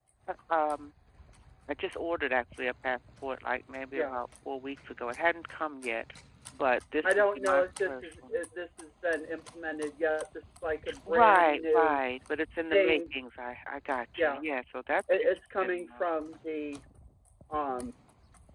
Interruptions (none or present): present